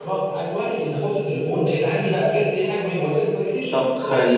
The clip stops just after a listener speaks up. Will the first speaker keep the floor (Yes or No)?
No